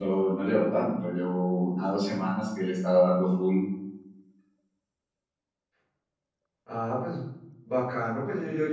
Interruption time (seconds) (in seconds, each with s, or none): none